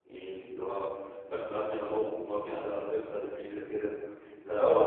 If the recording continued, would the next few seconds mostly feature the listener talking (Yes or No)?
Yes